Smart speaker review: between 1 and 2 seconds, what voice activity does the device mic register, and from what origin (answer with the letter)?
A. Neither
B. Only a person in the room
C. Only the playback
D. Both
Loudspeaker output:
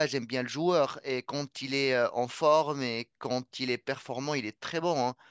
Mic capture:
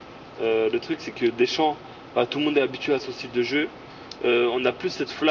B